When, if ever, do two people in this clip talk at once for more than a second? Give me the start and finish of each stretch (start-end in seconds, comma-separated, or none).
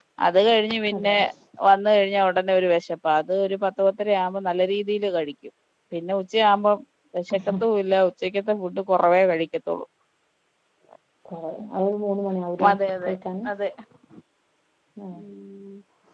none